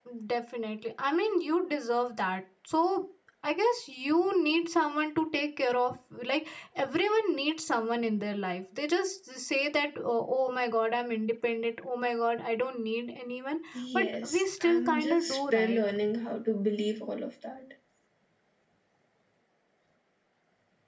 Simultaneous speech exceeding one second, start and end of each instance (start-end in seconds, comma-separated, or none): 13.9-15.8